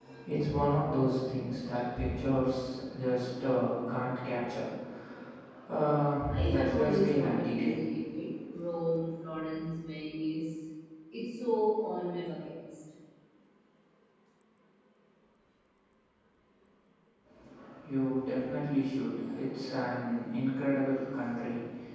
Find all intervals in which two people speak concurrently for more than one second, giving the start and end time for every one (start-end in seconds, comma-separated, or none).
6.3-7.7